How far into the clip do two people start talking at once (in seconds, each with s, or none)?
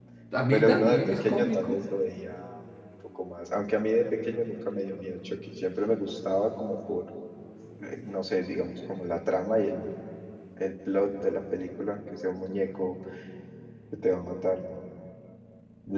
0.5 s